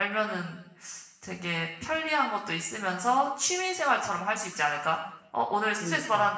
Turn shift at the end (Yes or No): No